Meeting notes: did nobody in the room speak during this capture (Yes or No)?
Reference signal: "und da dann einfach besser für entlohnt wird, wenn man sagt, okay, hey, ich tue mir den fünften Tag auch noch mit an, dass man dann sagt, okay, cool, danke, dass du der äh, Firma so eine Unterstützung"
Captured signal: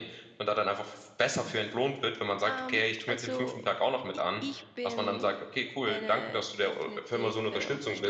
No